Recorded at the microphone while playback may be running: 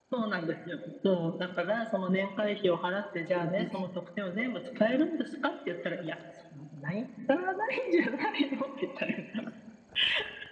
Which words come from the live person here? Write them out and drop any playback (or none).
ね。